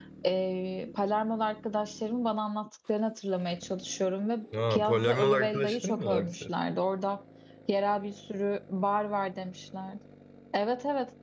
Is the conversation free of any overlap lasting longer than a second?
No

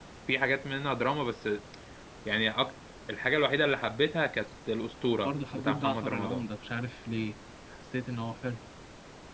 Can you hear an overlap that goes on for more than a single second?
Yes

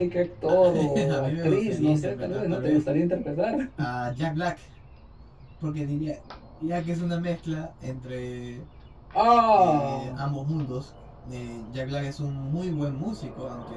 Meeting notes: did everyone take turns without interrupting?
No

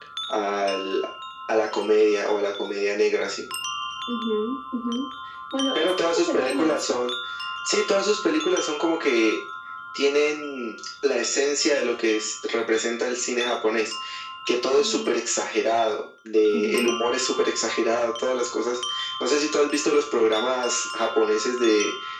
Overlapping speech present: Yes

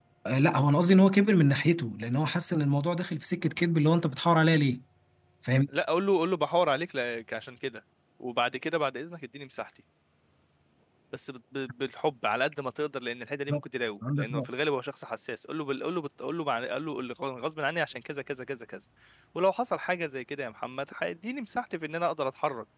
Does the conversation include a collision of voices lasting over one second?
No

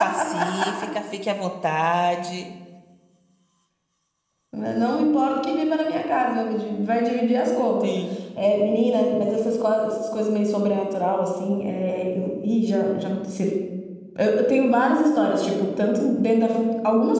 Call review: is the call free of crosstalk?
Yes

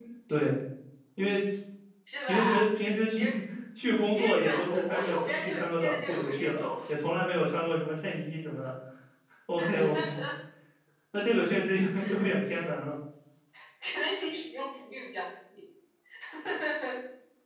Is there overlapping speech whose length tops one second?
Yes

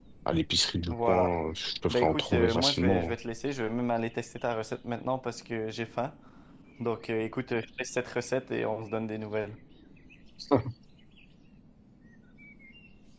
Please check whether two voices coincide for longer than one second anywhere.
Yes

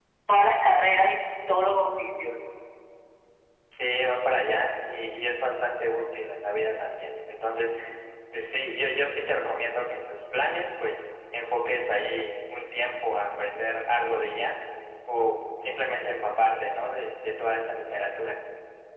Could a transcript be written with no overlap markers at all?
Yes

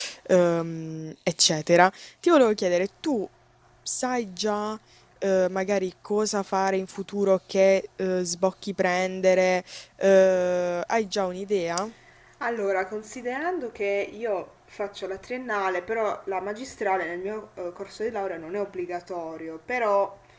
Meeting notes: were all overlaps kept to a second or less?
Yes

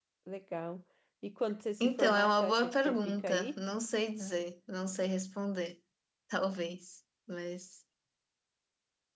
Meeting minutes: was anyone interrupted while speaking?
Yes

